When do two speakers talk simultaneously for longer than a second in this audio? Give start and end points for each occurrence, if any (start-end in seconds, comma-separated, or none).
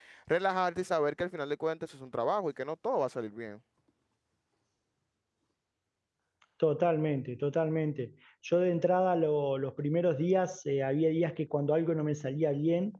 none